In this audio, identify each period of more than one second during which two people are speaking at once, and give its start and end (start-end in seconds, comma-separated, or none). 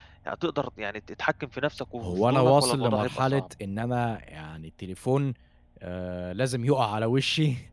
2.0-3.4